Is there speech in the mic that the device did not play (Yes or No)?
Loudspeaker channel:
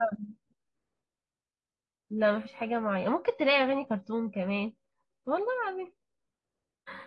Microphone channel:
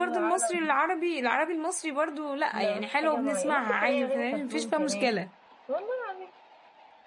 Yes